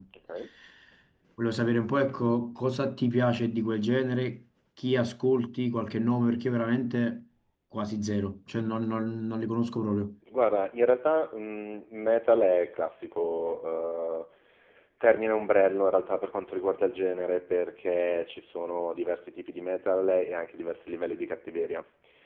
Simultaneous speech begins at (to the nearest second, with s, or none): none